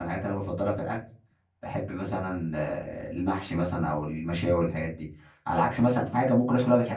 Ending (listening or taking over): listening